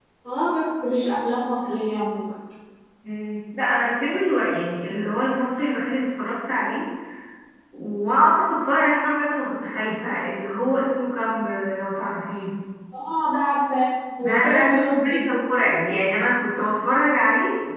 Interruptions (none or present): present